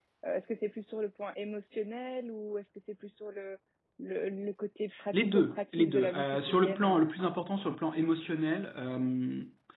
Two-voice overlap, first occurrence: 4.9 s

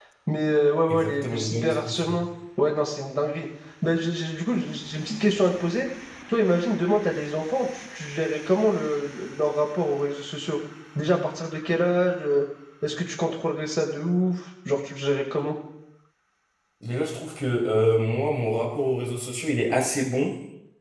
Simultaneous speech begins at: 0.9 s

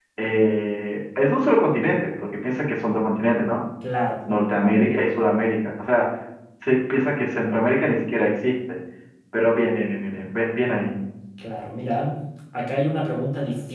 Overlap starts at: none

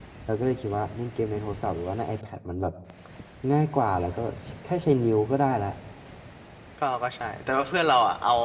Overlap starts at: none

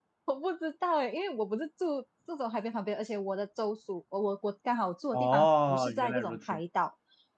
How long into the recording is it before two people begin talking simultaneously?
5.1 s

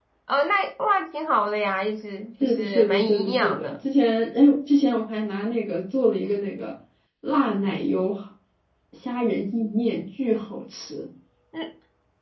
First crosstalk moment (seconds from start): 2.4 s

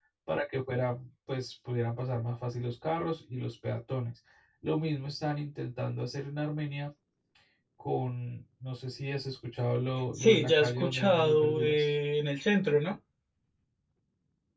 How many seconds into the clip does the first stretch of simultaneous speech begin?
10.1 s

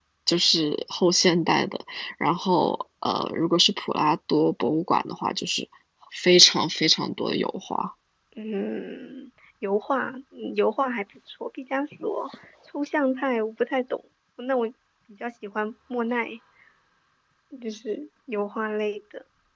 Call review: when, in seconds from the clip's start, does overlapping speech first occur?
none

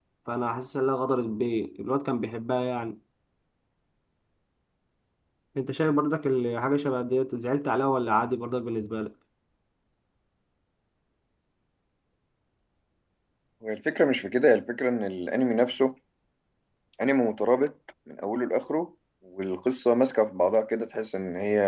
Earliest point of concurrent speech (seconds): none

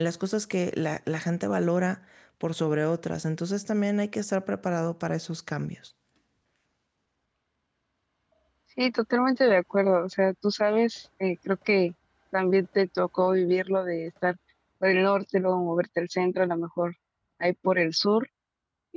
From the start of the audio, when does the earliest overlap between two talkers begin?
none

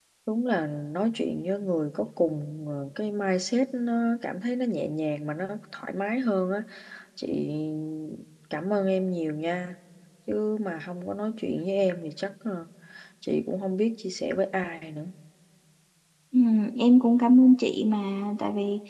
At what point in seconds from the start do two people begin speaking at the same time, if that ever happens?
none

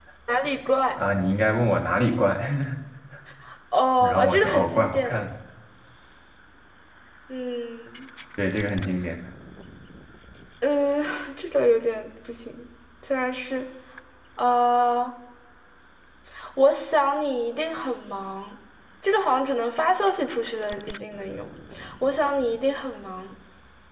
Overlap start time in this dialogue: 4.0 s

